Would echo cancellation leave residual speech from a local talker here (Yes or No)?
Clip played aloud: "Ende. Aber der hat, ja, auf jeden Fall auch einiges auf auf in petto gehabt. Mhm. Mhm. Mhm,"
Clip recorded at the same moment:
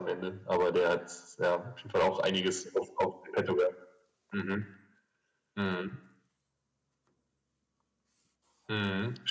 No